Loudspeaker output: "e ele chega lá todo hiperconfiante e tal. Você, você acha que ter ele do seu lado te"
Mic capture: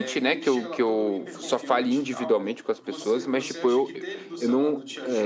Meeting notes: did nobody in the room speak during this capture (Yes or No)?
No